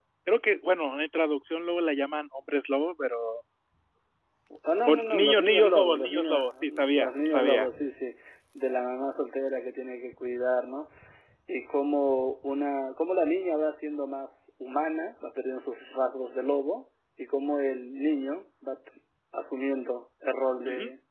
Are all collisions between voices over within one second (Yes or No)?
No